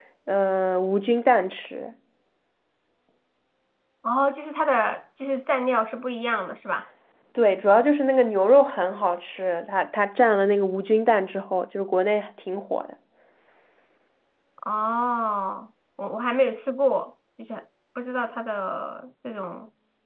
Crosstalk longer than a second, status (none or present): none